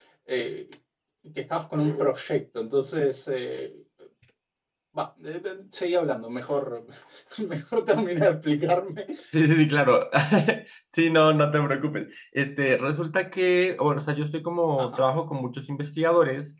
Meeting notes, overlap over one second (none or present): none